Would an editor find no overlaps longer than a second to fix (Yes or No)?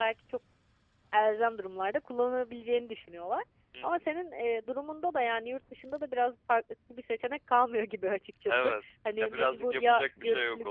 No